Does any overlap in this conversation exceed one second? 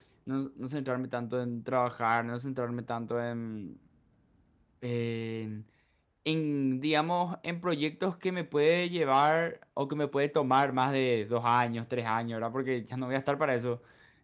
No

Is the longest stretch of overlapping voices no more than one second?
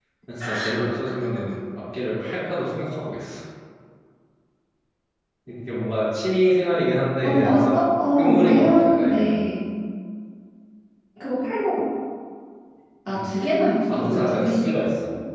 No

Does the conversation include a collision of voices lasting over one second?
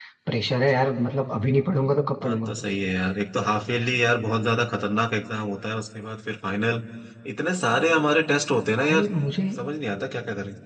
No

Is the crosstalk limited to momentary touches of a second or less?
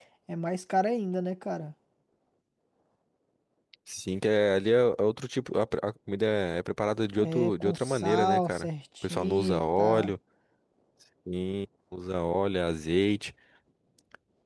No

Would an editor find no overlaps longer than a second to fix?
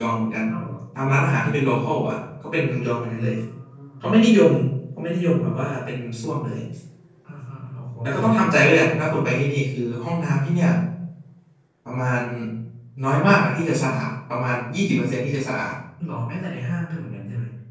Yes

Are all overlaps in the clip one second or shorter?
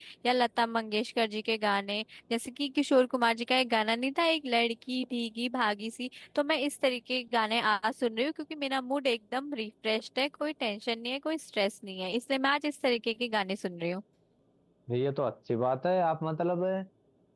Yes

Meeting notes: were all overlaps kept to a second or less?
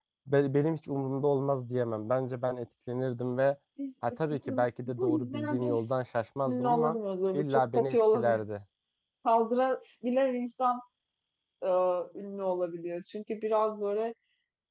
No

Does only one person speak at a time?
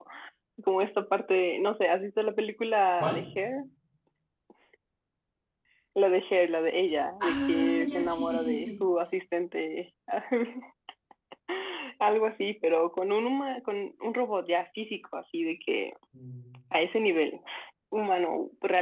No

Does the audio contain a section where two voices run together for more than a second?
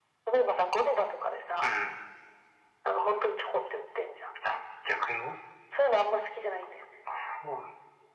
No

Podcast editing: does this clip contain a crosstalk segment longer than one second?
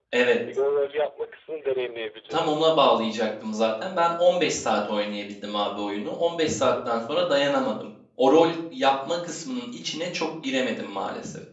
No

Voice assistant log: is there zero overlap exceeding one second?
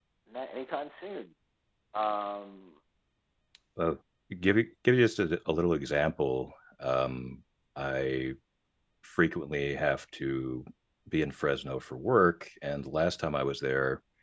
Yes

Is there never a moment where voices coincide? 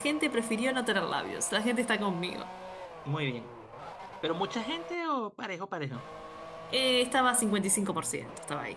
Yes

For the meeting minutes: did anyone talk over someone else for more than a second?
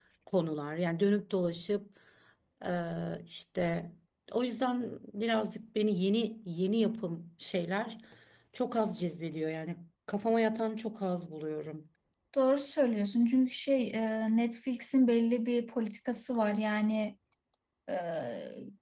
No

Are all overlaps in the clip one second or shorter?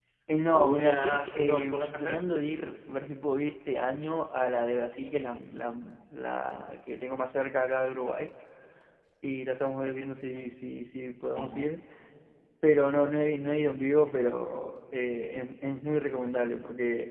No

